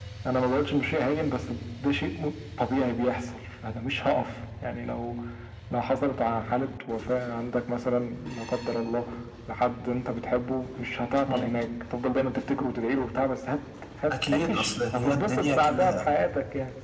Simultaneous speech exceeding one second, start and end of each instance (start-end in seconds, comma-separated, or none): 14.3-16.1